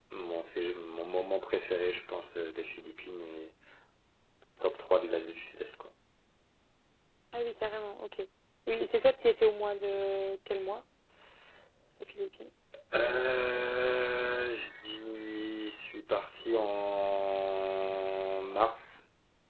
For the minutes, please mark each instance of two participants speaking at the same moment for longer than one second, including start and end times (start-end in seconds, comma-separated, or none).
none